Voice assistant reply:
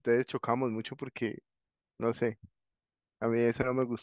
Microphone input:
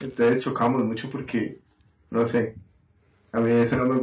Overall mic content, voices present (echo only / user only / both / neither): echo only